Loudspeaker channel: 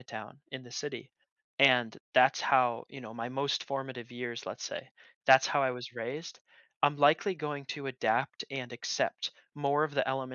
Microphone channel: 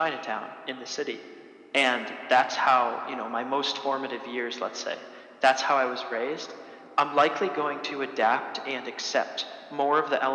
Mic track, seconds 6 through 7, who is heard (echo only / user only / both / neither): echo only